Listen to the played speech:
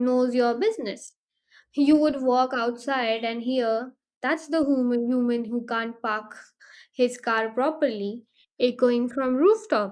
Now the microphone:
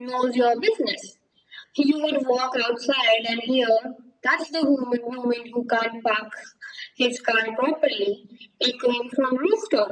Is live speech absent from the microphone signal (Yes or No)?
Yes